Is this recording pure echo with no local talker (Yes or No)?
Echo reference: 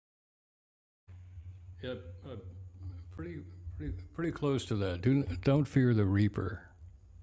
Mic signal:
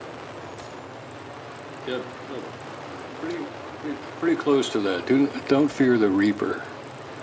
Yes